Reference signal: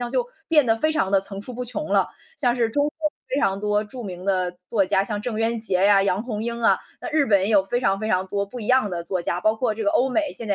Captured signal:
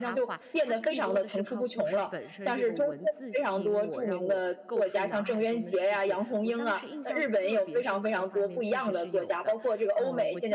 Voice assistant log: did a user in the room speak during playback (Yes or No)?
Yes